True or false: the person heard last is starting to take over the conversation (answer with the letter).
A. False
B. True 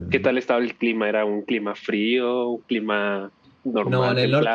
B